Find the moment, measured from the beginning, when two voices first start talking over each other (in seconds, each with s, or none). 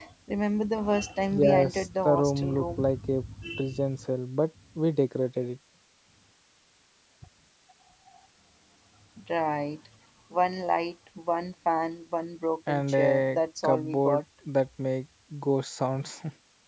1.4 s